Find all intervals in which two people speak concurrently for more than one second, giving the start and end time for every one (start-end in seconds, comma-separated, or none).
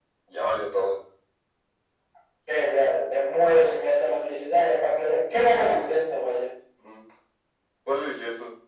none